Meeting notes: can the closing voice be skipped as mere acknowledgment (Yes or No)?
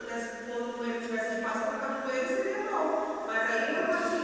Yes